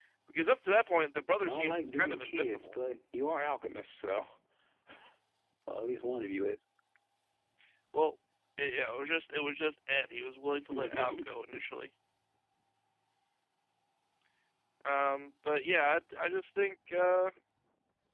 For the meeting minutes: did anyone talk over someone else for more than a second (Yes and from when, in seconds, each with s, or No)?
Yes, from 1.4 s